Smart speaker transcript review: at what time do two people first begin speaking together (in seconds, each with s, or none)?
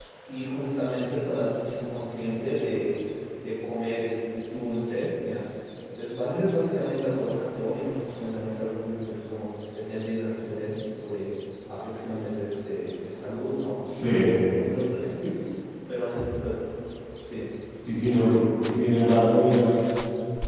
none